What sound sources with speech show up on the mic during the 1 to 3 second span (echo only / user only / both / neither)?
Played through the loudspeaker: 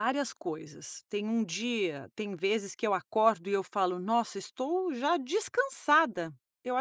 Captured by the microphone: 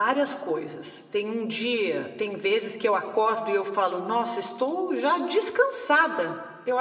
echo only